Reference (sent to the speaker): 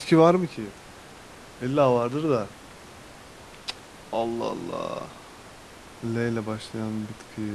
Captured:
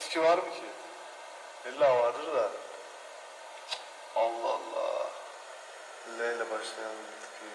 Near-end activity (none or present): none